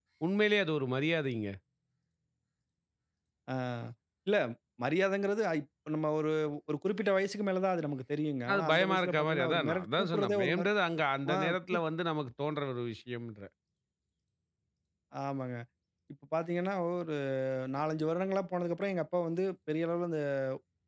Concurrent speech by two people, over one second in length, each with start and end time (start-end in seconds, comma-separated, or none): 8.5-10.7